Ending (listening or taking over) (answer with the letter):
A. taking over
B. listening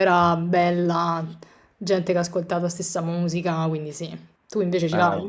A